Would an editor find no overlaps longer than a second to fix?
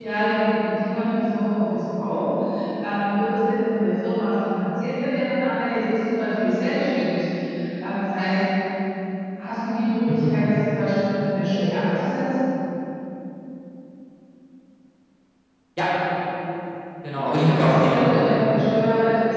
No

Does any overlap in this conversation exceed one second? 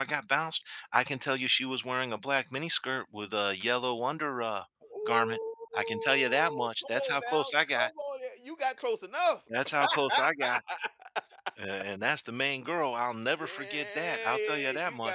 Yes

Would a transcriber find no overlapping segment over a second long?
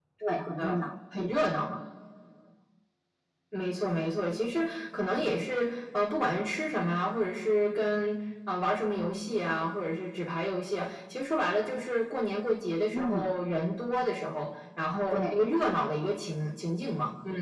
Yes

